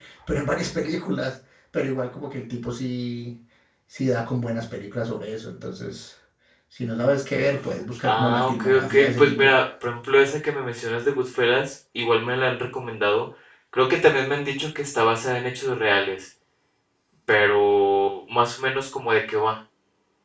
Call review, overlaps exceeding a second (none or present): present